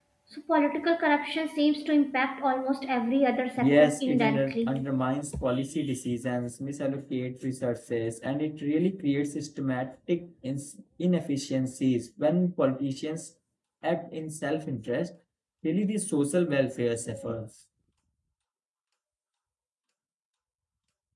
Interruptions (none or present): present